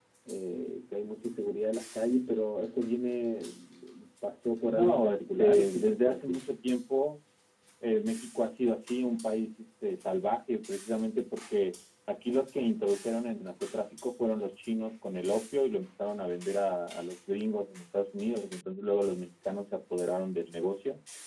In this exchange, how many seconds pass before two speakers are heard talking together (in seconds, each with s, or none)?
4.7 s